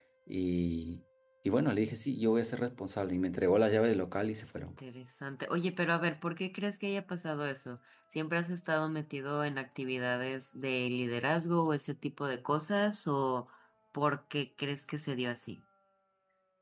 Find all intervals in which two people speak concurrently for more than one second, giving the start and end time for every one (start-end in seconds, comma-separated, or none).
none